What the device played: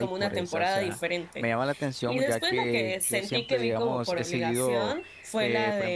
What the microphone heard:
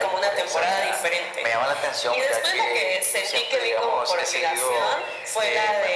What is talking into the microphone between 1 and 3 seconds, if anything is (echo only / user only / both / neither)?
echo only